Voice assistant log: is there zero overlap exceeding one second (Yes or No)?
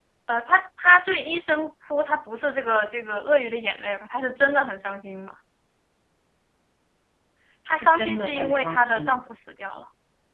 No